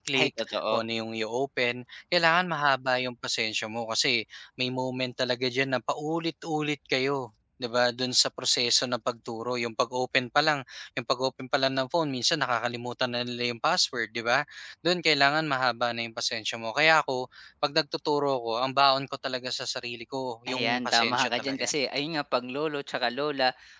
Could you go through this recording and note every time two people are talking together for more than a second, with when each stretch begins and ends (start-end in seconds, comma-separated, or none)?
20.5-21.7